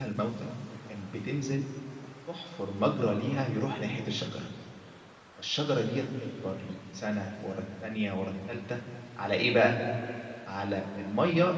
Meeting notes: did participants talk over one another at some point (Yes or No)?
No